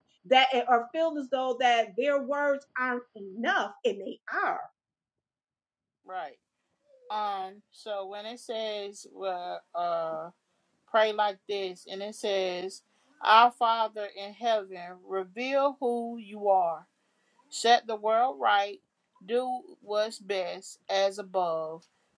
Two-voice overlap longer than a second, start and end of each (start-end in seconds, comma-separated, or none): none